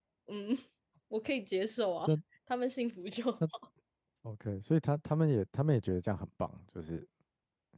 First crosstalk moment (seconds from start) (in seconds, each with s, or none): none